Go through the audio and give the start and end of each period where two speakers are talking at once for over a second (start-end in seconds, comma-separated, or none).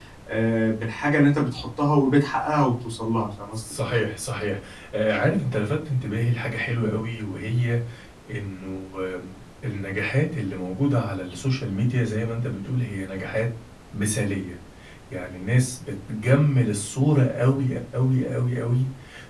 none